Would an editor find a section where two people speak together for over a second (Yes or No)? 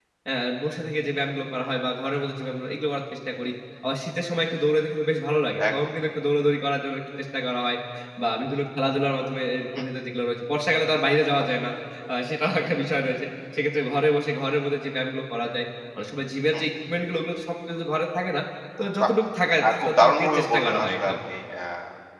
Yes